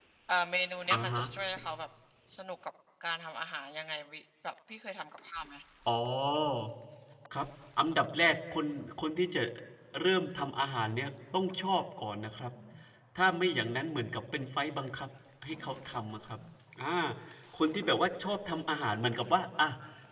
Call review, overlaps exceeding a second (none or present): none